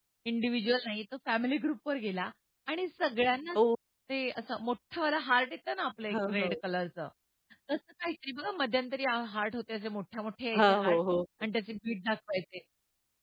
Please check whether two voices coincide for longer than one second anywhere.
No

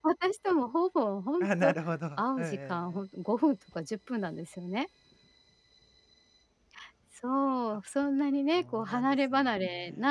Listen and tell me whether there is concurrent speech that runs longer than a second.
Yes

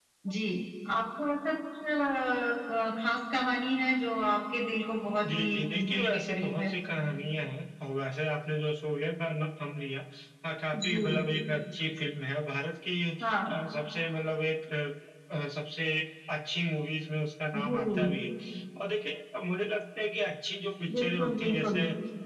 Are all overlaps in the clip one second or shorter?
No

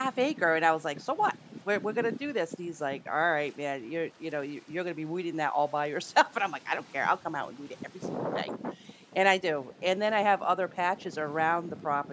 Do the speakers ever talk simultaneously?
No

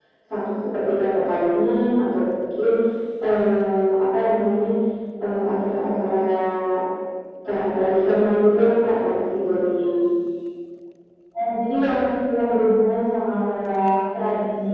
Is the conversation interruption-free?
Yes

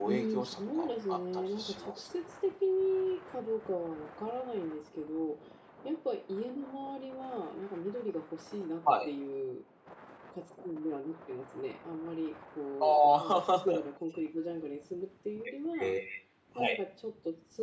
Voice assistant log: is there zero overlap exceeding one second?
No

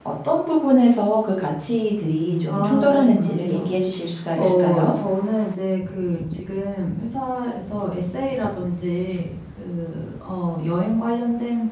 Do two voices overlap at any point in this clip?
Yes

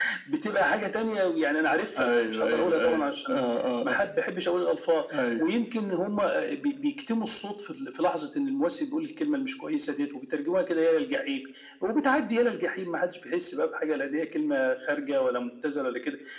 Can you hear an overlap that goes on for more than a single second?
Yes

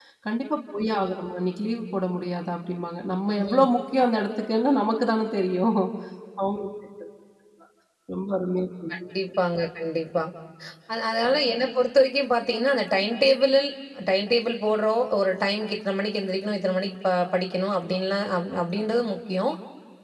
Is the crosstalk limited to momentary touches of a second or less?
Yes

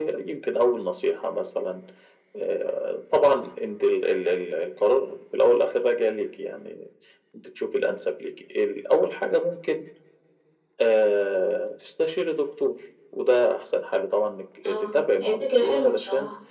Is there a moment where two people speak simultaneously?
Yes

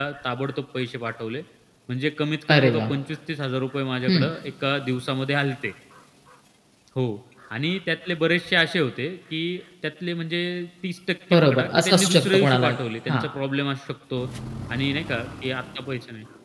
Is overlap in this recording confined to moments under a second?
No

